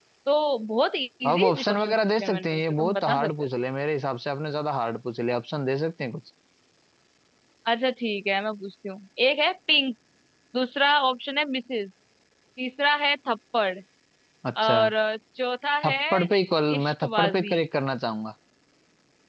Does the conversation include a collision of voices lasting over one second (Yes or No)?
Yes